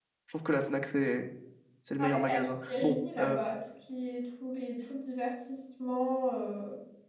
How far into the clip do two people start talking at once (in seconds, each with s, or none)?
2.0 s